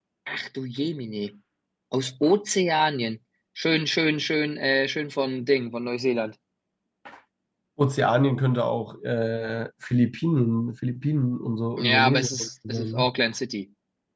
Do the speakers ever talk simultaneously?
Yes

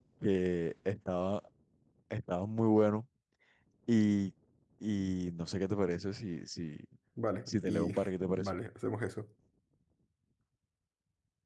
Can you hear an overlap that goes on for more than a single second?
No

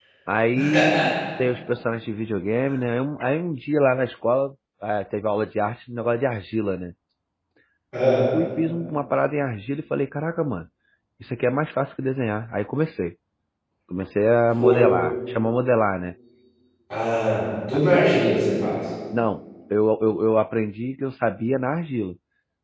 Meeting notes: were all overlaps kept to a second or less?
Yes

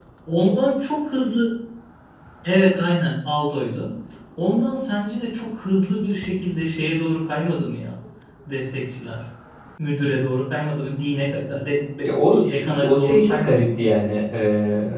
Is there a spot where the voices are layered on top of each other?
Yes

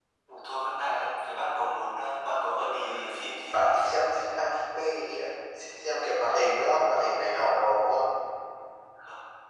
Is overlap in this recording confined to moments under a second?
No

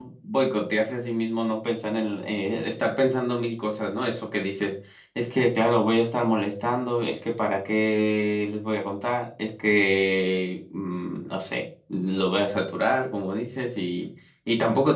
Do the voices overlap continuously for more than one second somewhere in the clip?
No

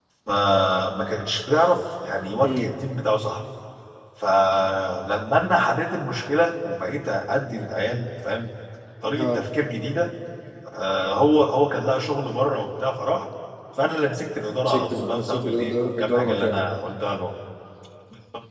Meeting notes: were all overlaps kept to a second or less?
No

